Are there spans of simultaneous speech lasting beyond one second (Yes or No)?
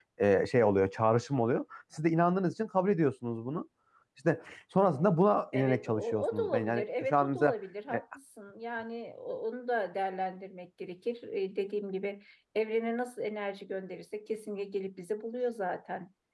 Yes